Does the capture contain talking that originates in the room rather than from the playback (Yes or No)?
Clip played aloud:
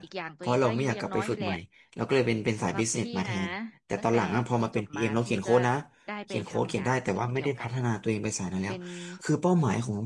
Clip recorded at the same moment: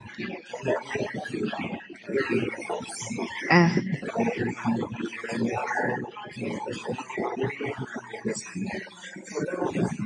Yes